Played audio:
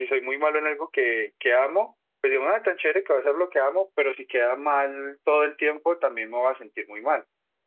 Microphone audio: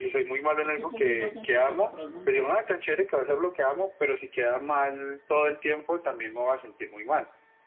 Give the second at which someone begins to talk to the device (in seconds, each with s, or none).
0.6 s